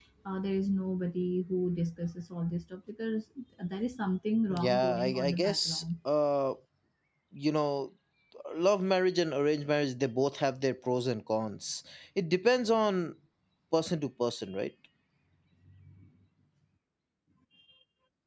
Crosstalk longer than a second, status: present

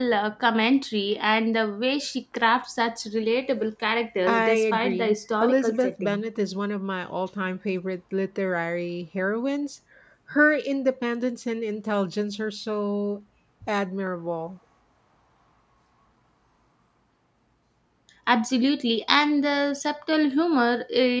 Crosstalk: present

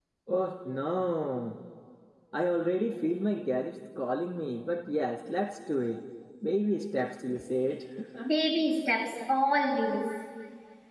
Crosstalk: none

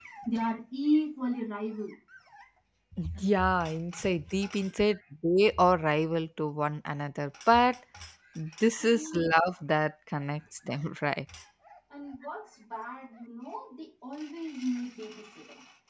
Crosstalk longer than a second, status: none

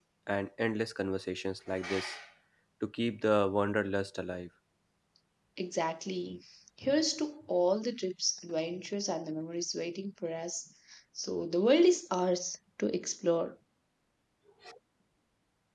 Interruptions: none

